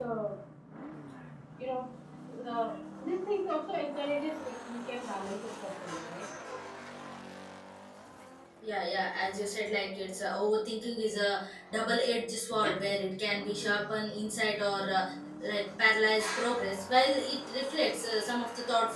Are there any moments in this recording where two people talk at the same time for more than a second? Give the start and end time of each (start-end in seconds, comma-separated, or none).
none